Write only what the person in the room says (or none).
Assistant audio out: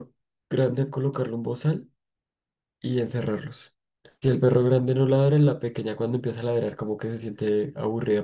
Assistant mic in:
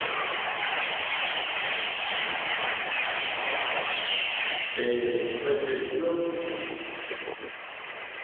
eh, pues yo entiendo,